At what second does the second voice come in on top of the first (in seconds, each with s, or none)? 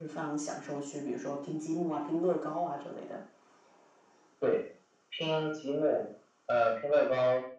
none